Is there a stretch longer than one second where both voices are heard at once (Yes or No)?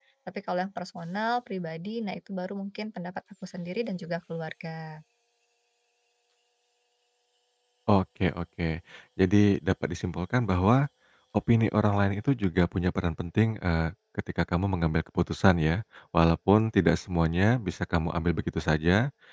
No